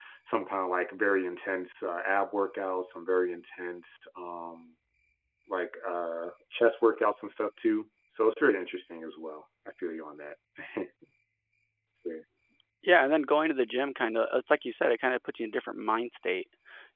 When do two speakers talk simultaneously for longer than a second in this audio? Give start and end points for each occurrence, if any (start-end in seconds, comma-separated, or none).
none